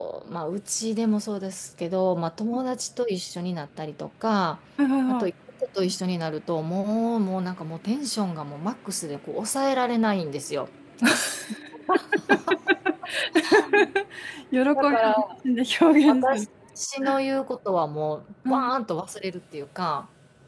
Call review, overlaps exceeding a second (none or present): none